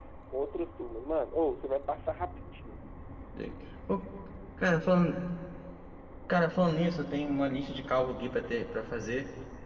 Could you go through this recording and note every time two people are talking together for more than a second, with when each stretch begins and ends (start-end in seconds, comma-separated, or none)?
none